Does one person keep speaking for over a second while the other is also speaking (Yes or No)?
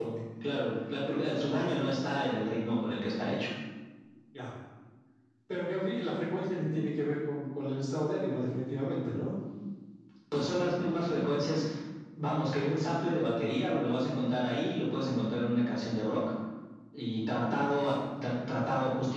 No